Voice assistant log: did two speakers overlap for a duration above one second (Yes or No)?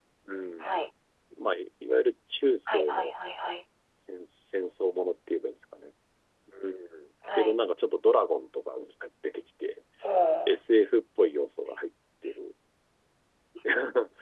No